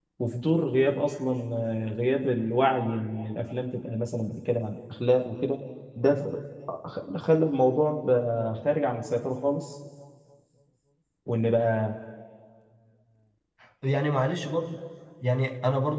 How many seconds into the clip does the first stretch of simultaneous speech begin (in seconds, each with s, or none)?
none